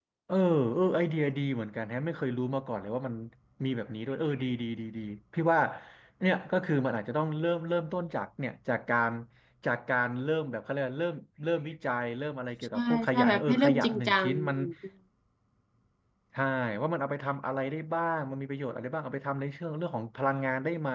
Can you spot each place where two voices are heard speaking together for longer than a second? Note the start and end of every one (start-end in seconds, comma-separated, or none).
12.7-14.6